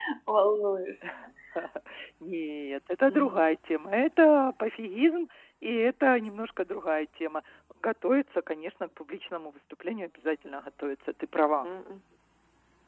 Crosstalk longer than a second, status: none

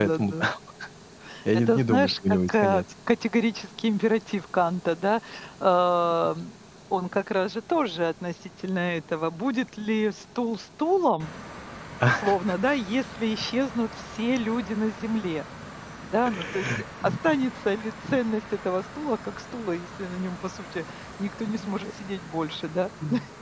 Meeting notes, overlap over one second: present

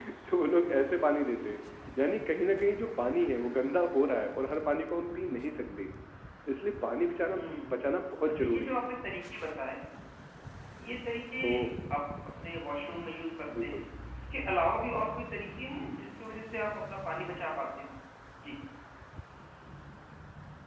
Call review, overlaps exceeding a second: none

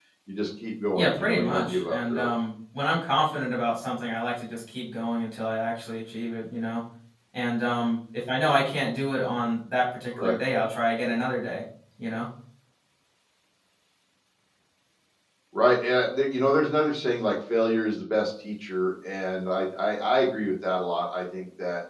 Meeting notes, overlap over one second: present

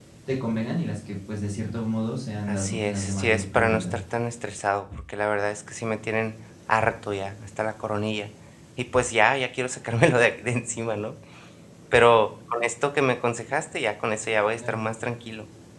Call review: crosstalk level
present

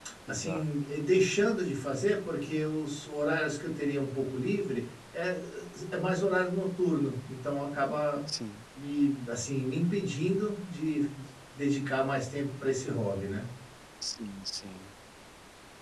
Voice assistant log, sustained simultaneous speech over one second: none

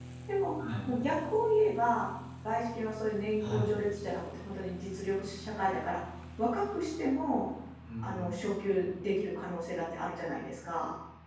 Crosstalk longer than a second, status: none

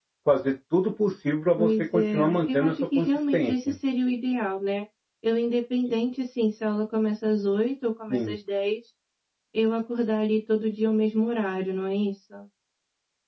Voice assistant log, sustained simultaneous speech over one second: present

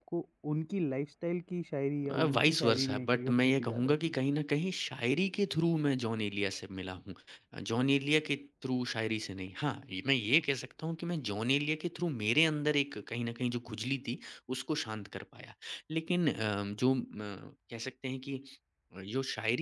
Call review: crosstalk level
present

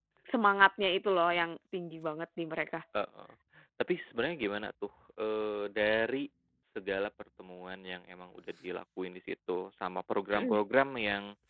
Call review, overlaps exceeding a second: none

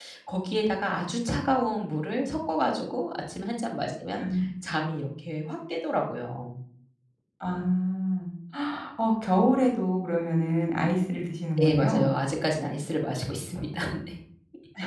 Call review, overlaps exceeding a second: none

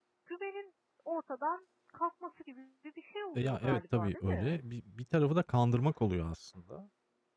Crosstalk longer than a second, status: present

